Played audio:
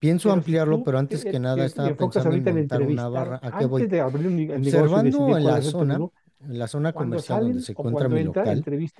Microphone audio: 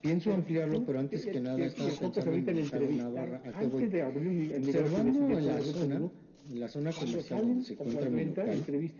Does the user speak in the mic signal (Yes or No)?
No